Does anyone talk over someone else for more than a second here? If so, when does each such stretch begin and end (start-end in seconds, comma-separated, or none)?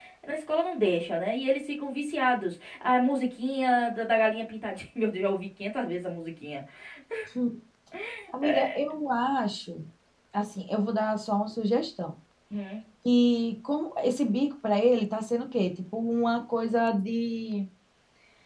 none